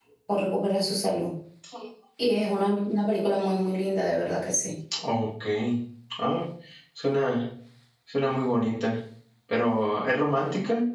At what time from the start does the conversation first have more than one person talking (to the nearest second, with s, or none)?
none